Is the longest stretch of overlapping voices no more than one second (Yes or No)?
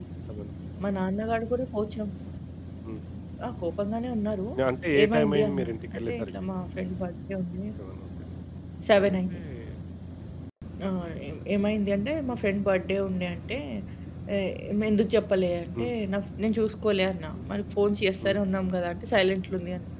No